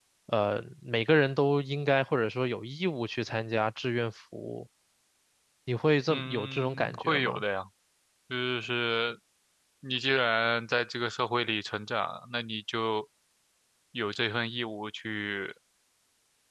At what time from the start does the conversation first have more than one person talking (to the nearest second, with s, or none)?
6 s